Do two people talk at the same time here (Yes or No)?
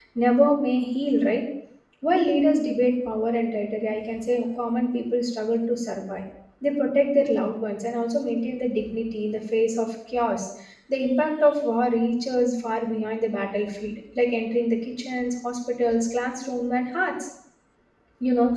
No